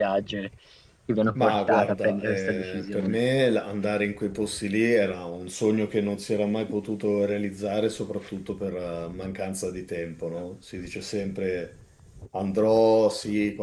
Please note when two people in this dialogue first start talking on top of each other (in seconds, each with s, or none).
1.4 s